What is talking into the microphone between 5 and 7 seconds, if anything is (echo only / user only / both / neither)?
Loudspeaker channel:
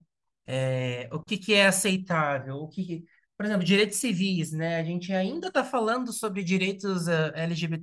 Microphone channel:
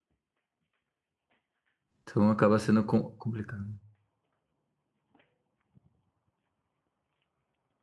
neither